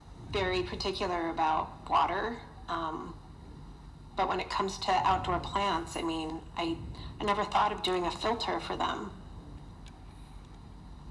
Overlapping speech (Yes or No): No